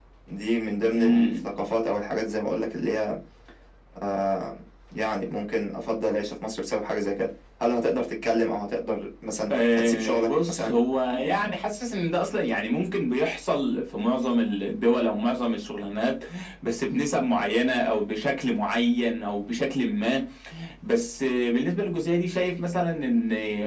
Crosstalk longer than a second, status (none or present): present